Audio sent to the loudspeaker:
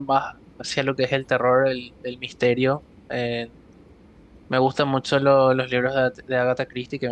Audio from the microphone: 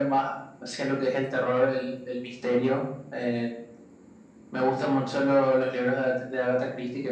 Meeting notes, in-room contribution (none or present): none